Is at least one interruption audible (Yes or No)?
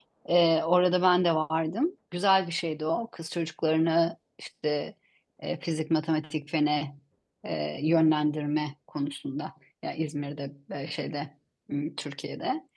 No